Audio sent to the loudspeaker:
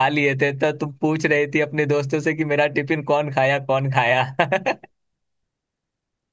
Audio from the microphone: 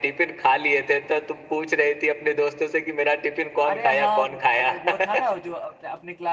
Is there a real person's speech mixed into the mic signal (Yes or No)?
Yes